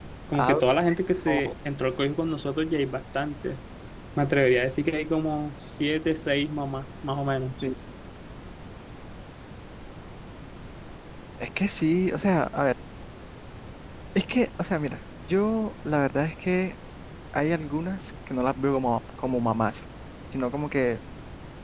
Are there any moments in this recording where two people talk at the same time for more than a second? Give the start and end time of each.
none

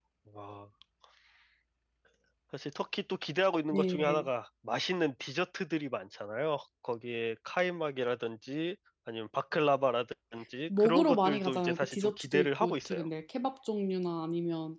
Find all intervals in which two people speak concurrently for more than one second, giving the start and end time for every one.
10.8-13.1

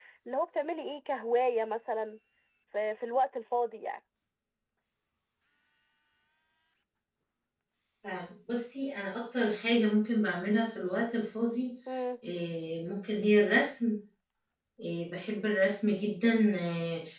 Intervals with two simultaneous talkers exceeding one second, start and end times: none

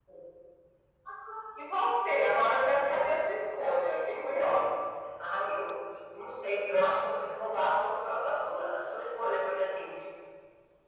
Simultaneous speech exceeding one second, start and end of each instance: 2.8-4.7

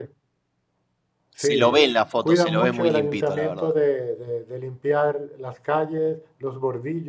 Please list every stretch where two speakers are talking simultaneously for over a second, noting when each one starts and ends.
2.2-3.7

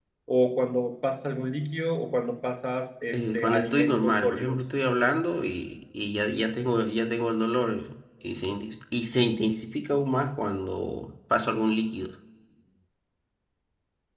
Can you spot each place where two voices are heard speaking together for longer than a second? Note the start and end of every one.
3.1-4.6

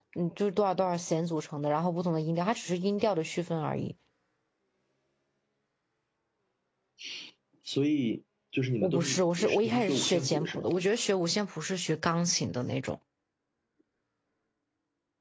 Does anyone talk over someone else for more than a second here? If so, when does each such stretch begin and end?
8.8-10.7

